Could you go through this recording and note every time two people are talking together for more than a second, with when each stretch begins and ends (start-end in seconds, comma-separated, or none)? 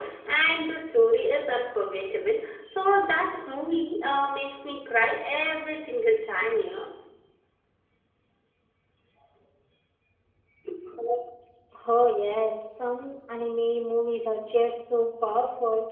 none